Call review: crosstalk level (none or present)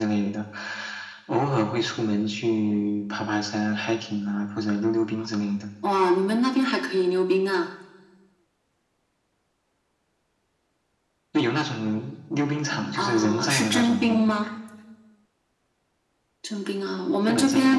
present